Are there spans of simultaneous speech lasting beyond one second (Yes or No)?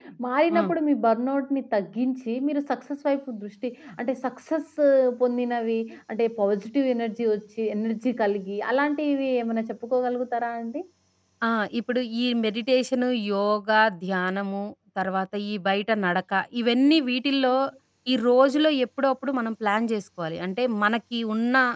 No